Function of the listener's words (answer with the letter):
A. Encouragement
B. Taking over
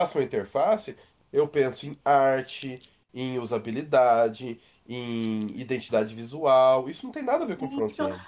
B